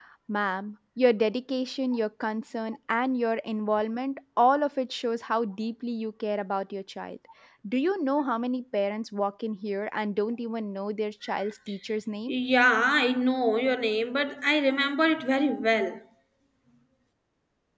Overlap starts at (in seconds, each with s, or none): none